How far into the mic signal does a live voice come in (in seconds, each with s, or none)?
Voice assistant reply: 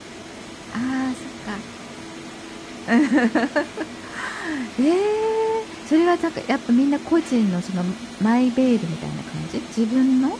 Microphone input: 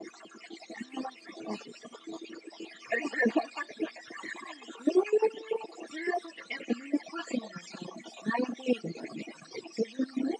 none